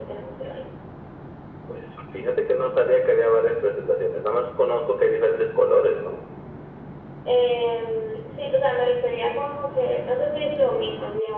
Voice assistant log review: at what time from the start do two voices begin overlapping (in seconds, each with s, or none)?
none